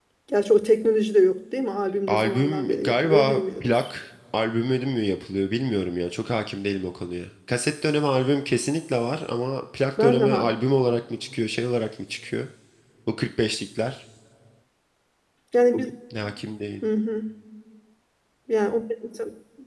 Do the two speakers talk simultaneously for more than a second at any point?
Yes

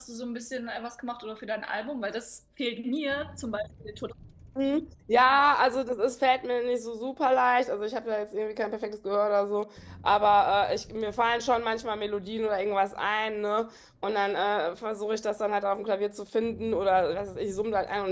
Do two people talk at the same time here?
No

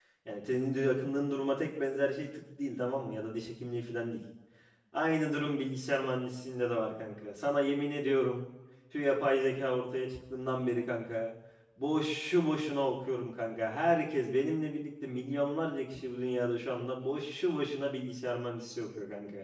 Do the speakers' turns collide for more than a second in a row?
No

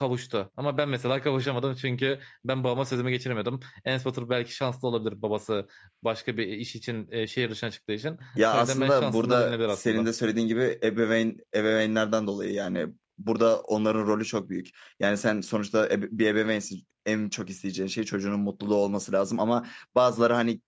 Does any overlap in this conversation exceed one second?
Yes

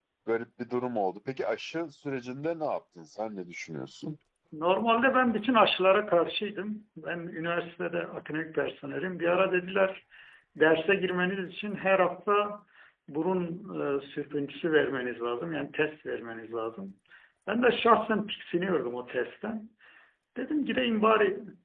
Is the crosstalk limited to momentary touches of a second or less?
Yes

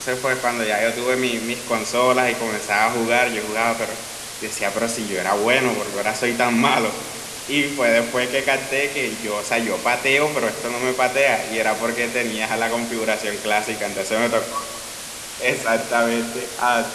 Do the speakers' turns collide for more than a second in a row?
No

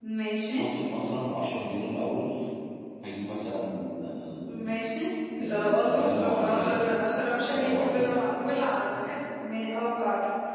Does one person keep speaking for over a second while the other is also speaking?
Yes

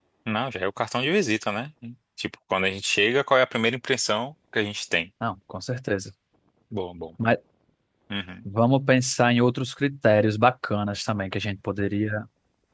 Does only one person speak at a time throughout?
Yes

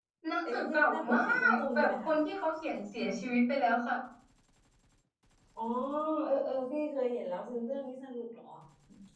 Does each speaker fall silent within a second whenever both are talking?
No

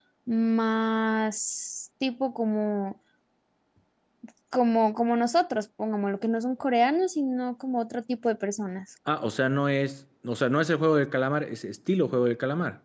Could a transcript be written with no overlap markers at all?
Yes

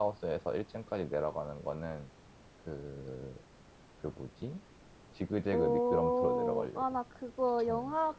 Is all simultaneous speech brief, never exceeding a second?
No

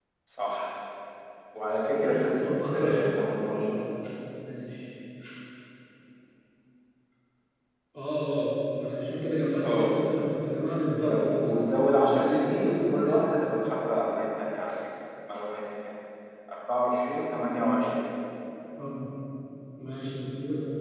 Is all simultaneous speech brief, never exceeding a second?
No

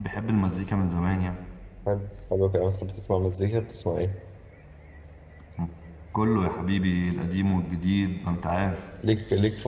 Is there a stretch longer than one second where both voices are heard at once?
No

